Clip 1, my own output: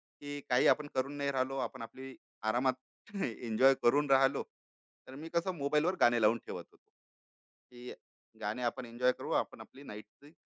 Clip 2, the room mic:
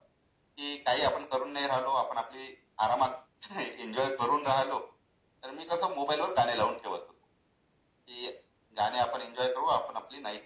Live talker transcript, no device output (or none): none